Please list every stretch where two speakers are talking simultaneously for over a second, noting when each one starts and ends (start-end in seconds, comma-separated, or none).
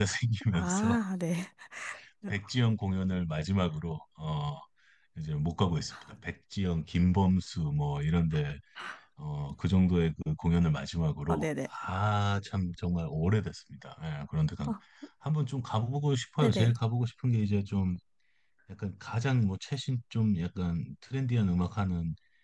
none